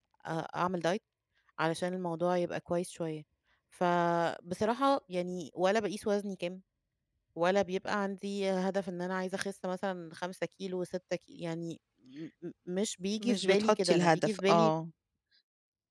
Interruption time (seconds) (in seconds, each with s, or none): 13.2 s